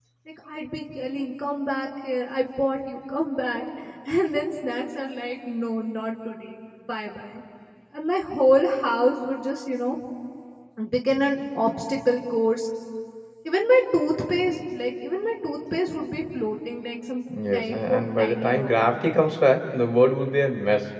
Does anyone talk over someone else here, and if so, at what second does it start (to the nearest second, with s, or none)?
17 s